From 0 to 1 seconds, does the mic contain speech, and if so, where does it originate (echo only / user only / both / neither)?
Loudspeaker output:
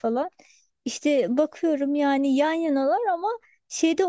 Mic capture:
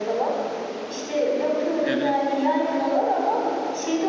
echo only